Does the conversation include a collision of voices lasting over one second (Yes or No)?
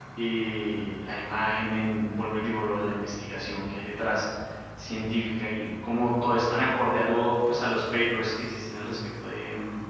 No